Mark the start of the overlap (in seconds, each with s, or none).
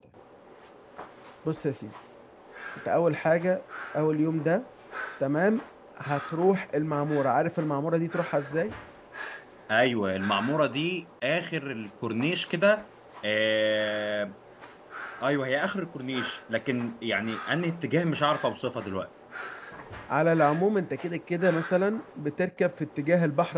none